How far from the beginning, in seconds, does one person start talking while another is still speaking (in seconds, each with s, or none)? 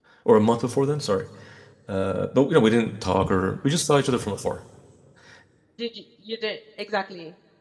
none